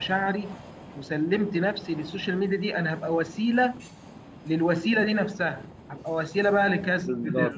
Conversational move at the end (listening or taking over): listening